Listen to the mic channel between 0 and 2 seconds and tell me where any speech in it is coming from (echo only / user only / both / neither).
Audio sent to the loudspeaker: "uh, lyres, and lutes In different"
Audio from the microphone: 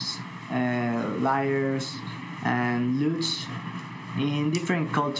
echo only